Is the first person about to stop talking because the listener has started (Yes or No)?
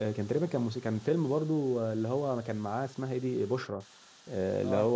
No